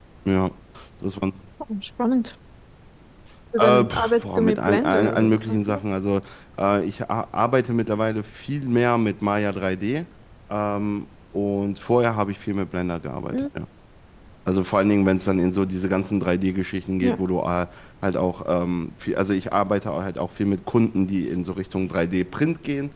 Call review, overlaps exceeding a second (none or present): present